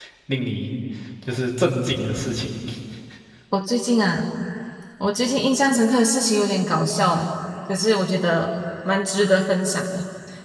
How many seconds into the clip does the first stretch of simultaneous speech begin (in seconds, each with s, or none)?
none